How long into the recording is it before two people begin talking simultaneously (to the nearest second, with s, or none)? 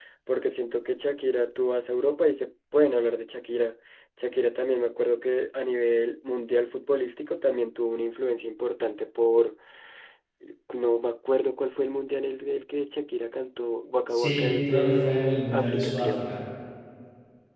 14 s